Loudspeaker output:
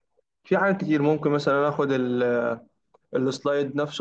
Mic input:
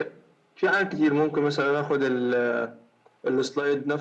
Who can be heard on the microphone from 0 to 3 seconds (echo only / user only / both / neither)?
echo only